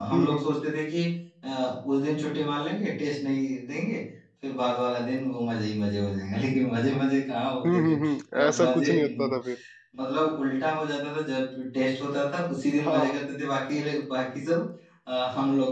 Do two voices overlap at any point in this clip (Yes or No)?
Yes